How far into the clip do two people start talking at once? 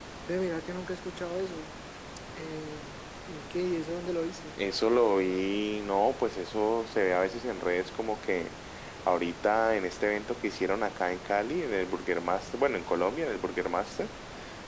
none

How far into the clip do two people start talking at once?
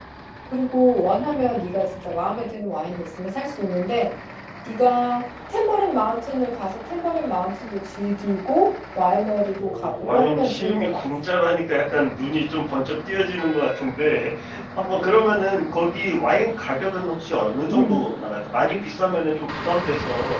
10 s

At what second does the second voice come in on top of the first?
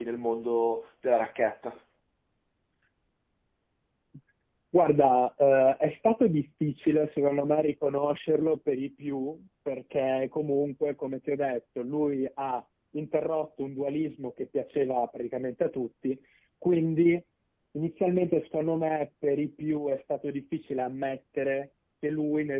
none

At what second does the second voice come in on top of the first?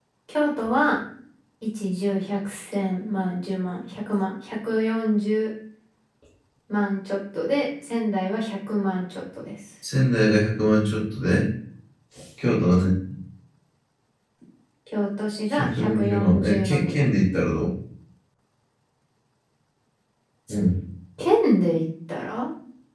16 s

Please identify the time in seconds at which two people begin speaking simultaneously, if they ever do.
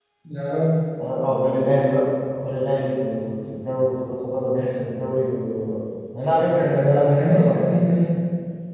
7 s

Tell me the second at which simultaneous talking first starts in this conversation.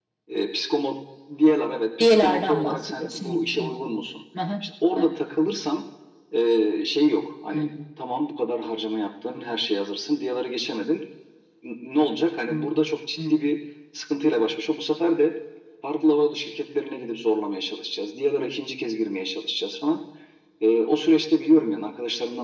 2 s

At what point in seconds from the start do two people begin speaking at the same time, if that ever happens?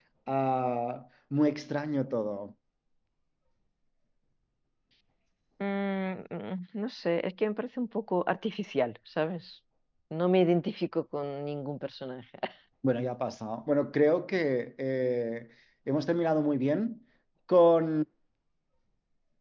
none

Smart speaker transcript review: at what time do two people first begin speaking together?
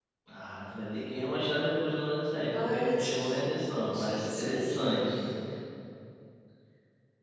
2 s

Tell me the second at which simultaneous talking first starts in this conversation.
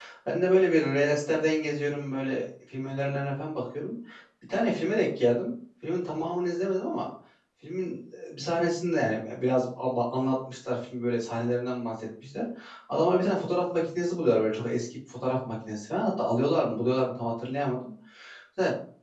none

